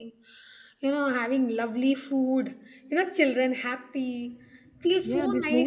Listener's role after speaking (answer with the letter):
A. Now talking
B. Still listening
A